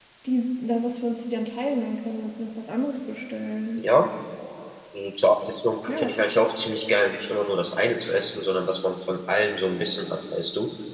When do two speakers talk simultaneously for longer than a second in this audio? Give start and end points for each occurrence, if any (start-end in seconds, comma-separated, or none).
none